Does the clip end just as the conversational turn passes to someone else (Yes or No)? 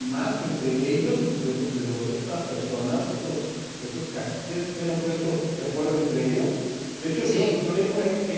No